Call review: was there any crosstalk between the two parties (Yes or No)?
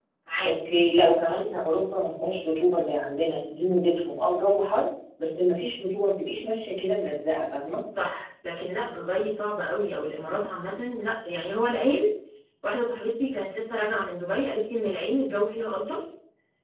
No